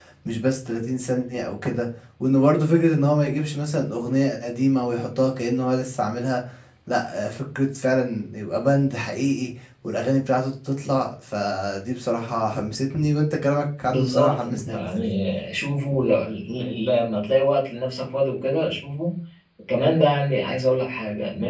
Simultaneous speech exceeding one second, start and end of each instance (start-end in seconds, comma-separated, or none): 13.8-15.1